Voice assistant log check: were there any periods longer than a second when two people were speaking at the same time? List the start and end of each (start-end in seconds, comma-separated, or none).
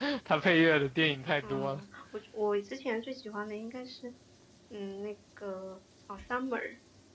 none